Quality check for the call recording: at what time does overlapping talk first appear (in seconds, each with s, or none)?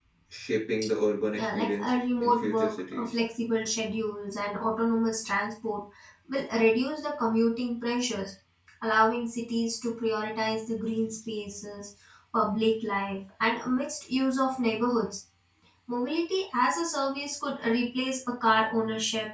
1.3 s